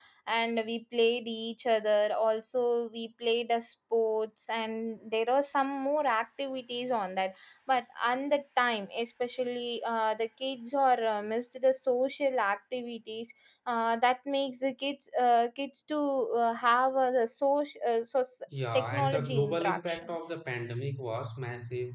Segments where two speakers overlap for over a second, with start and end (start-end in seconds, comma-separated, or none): 18.7-20.4